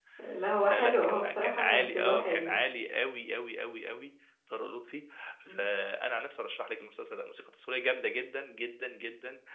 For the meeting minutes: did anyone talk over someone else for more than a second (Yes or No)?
Yes